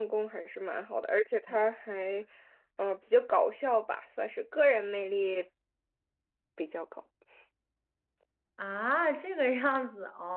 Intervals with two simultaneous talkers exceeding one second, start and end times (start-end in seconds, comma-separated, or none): none